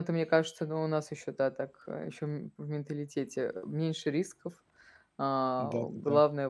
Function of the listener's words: listening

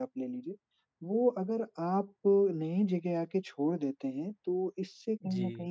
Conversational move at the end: listening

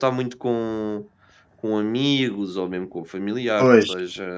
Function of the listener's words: taking over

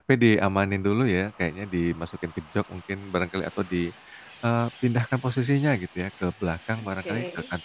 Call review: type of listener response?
listening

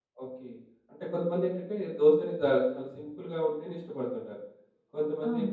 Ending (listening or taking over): listening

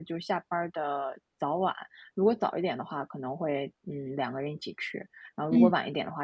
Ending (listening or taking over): listening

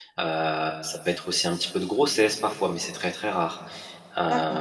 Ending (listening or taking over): listening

